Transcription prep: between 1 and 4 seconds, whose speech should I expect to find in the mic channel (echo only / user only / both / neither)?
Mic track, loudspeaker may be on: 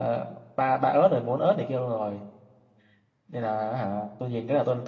echo only